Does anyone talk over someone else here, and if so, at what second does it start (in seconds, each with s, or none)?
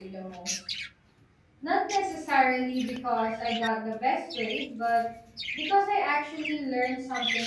none